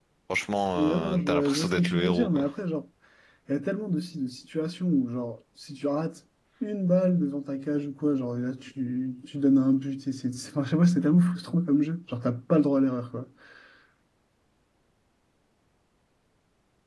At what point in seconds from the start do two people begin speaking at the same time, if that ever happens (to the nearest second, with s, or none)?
1 s